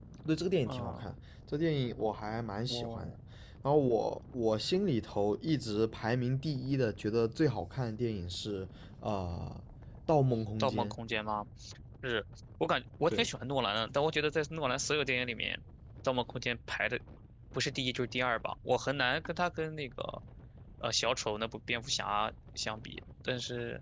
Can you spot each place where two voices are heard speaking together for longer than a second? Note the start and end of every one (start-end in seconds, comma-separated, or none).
none